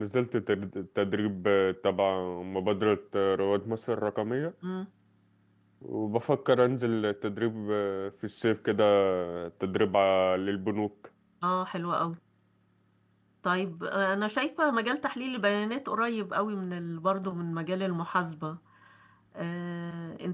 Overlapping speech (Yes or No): No